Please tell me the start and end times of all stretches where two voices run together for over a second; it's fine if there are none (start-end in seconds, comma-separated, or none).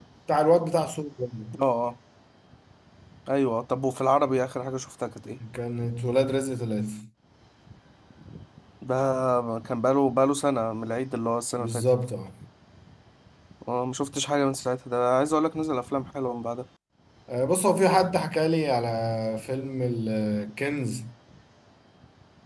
none